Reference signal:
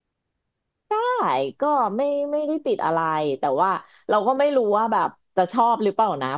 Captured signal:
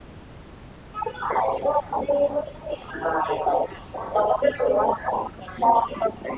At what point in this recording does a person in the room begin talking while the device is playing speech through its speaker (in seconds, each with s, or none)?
none